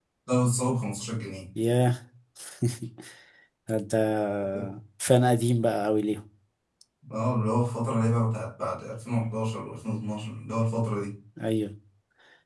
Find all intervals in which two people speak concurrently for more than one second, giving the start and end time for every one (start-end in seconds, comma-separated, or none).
none